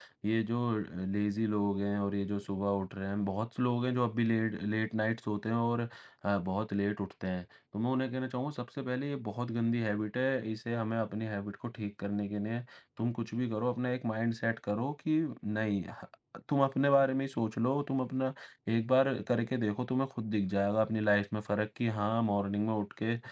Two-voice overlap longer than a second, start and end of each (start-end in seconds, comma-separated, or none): none